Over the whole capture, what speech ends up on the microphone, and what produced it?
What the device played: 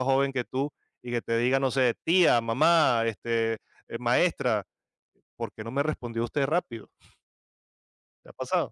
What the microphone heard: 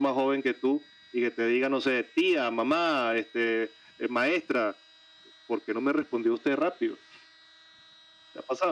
echo only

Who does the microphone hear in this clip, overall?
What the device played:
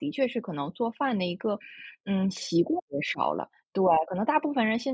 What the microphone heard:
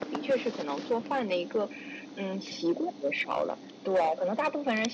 echo only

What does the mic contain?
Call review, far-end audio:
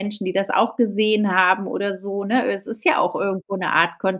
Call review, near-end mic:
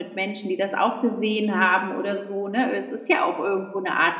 echo only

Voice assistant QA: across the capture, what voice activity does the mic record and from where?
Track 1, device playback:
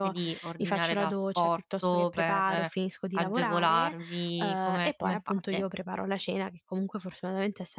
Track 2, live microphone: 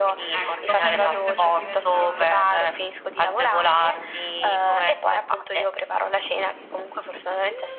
both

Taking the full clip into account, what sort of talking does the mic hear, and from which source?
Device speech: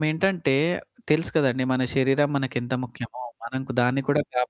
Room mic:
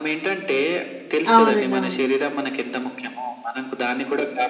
both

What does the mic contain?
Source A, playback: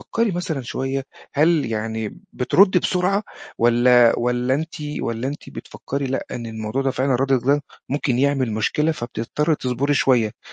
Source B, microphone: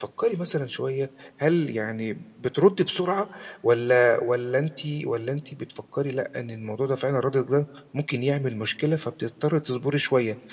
echo only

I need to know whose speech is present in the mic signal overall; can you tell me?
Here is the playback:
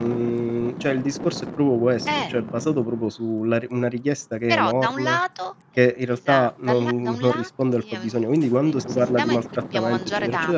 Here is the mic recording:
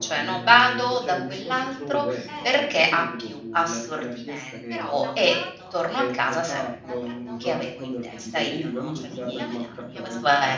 both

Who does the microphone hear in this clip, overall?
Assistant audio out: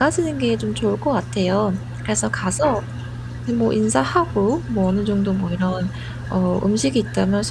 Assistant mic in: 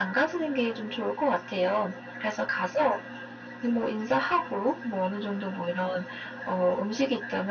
echo only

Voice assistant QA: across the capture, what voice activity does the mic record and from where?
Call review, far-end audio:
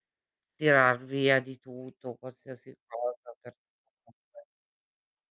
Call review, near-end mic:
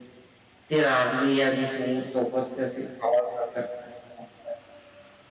echo only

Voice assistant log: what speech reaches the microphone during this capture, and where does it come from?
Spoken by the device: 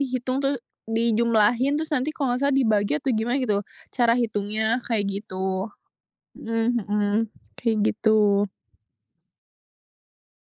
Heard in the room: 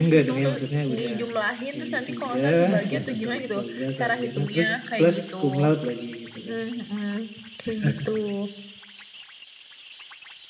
both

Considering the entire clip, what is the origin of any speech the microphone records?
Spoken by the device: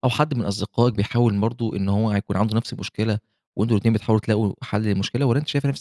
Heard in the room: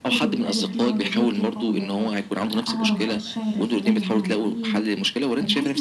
both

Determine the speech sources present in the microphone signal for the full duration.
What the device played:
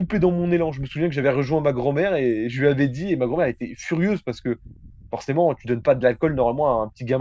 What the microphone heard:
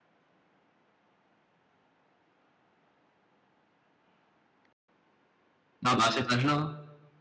user only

